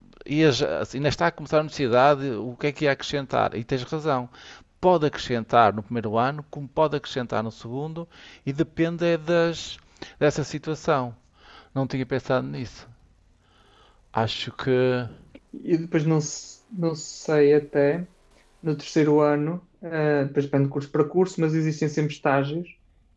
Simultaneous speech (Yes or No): No